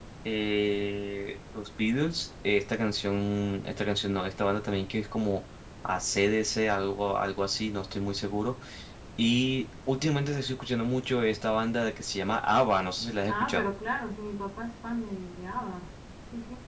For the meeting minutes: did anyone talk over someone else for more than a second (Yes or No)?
No